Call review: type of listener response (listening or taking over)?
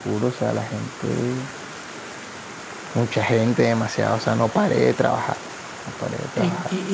taking over